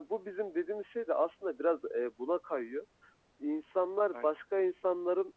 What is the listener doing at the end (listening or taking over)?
listening